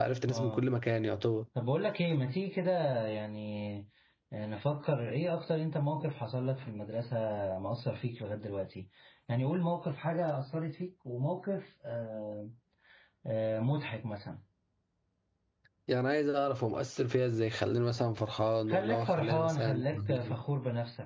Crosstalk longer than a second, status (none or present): present